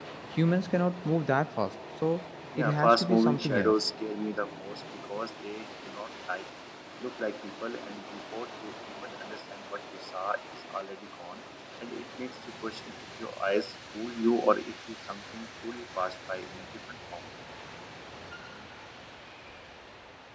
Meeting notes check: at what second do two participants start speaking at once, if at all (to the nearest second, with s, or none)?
3 s